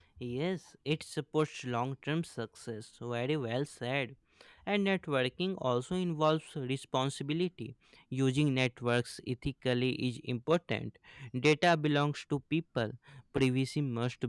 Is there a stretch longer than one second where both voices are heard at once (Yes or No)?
No